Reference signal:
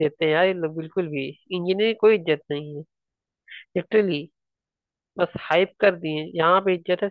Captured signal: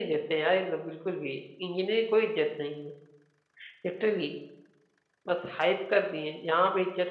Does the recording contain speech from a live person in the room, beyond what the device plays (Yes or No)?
No